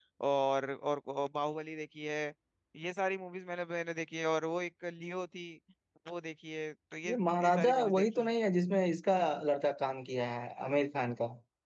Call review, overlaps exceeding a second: present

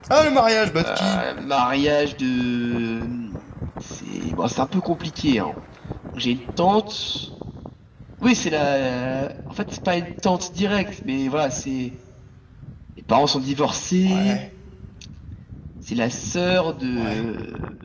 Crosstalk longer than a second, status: none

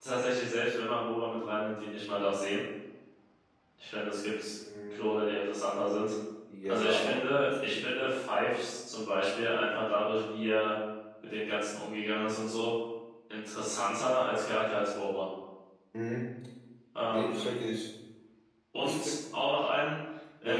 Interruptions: present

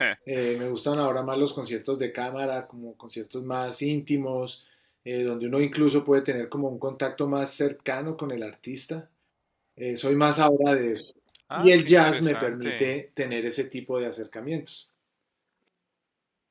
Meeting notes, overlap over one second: present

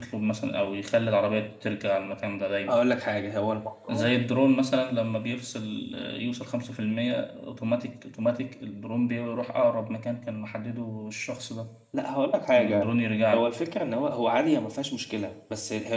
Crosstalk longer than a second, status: none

